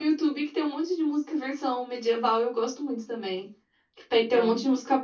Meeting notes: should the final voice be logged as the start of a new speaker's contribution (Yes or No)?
No